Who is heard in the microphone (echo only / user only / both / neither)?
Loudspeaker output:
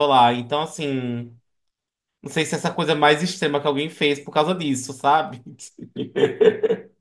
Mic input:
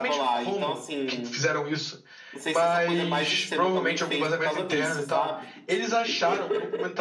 both